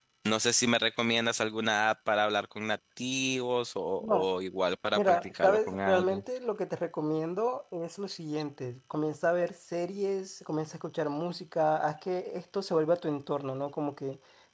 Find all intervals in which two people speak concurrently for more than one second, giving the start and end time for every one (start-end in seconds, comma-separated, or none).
5.0-6.2